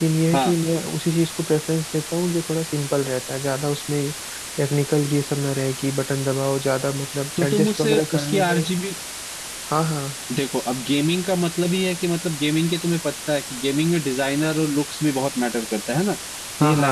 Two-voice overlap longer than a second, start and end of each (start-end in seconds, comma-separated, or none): 7.4-8.6